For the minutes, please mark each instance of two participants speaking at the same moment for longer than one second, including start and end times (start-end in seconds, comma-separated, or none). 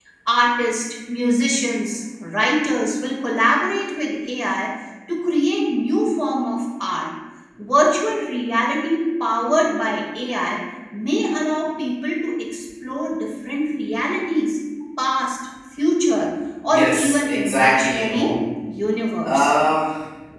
16.7-18.3